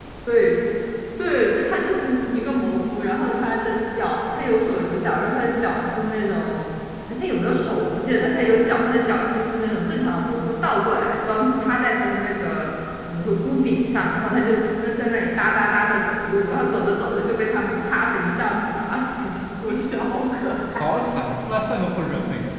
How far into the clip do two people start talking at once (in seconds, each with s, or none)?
none